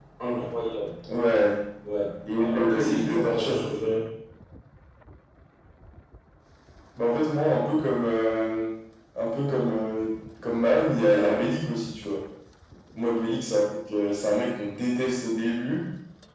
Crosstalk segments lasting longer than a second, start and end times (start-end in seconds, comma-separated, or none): 2.3-3.6